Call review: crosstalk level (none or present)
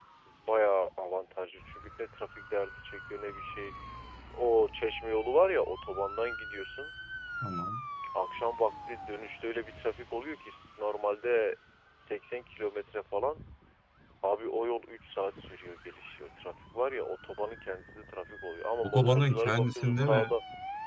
present